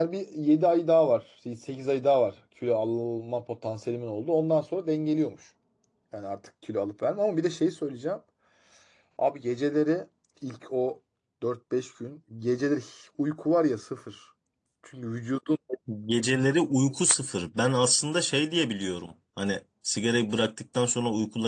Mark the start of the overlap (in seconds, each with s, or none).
none